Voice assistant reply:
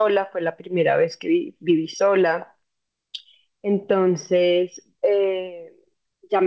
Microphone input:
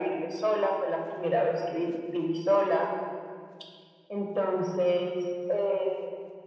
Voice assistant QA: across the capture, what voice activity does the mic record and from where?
echo only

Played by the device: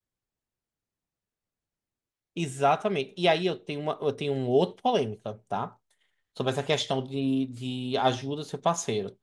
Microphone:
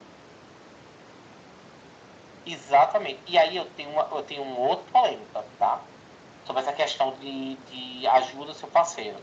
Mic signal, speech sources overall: echo only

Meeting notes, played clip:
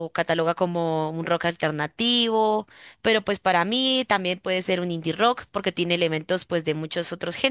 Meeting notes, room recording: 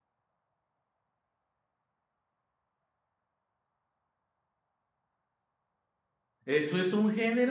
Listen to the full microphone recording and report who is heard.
user only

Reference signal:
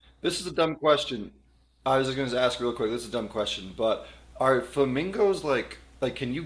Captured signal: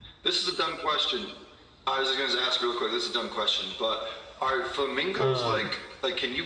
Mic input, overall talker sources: both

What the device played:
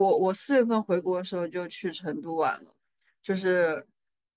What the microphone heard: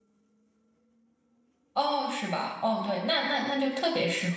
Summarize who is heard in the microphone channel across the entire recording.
user only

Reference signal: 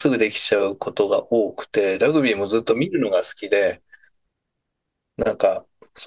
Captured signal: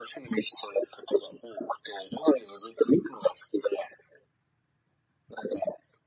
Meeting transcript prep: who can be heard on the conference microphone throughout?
echo only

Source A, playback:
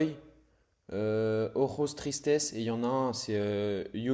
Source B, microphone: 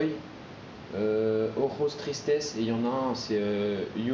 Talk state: echo only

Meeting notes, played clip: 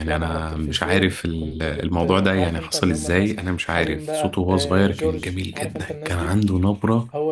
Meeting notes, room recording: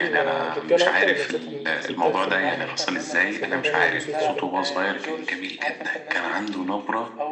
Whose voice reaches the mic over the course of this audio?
both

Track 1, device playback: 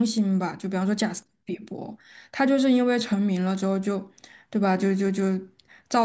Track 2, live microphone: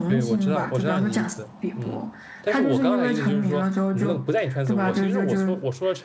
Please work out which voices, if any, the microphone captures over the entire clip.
both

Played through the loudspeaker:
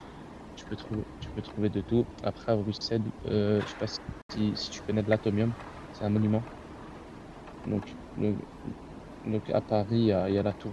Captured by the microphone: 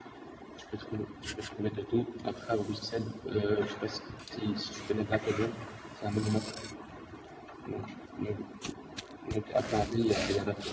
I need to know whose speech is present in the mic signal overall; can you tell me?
echo only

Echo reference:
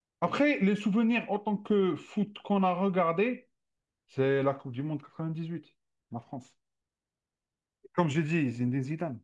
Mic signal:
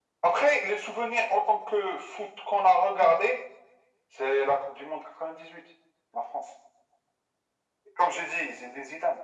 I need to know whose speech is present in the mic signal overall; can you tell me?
echo only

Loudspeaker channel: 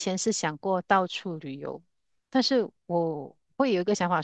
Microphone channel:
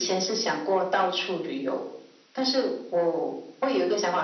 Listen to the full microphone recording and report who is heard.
echo only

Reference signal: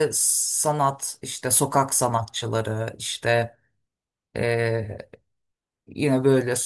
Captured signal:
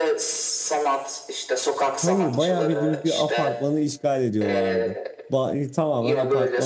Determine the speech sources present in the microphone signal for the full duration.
both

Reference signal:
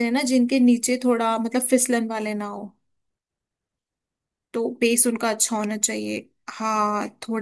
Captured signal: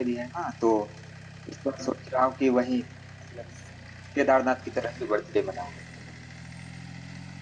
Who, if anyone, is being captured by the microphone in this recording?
user only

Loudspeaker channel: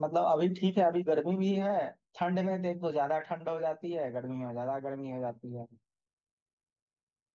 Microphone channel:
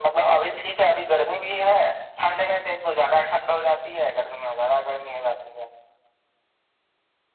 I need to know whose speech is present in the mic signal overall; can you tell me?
echo only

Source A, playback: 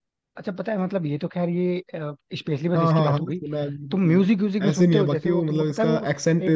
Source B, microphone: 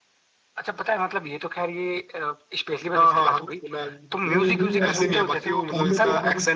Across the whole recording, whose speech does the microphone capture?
both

